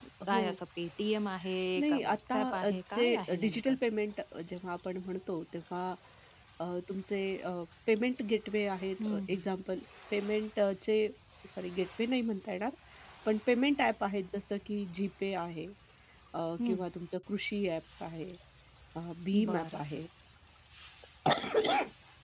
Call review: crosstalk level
present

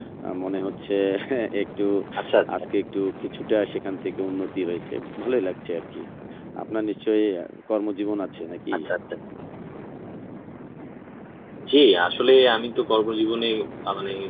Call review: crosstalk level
none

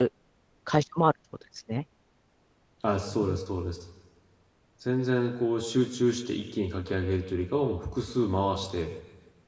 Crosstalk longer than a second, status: none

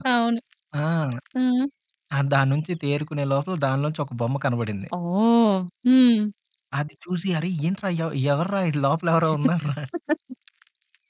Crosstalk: none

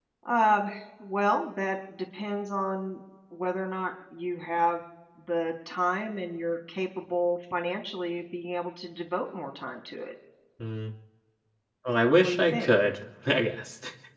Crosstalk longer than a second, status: none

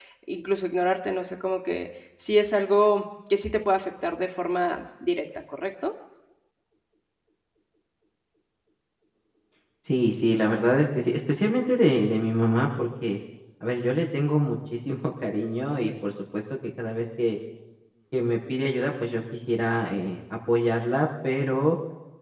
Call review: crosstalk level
none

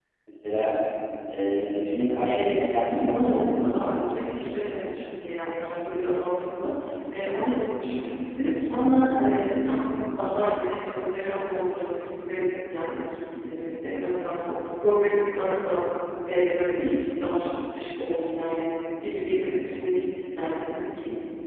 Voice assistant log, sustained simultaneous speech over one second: present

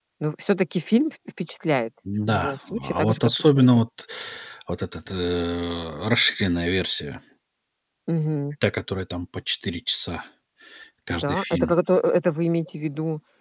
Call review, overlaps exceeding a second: present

